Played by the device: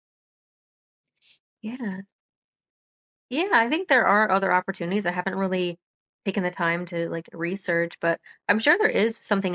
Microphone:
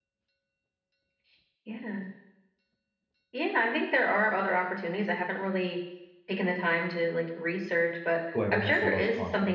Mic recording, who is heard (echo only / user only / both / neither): both